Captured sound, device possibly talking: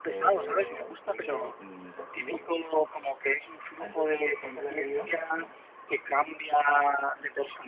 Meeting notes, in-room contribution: present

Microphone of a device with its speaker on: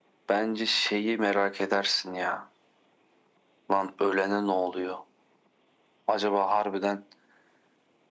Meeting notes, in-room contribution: none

